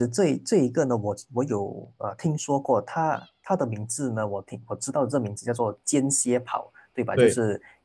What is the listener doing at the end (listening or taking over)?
listening